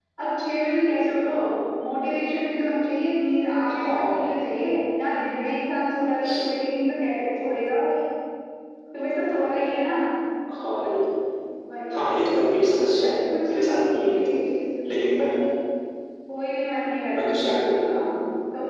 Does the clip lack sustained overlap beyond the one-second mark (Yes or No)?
No